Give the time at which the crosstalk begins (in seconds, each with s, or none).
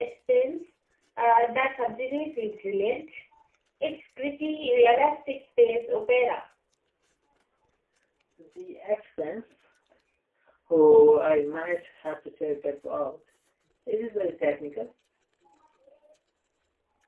none